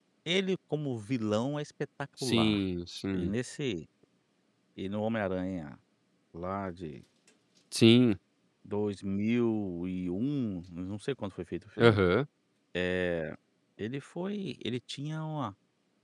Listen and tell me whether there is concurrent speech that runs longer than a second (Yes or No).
No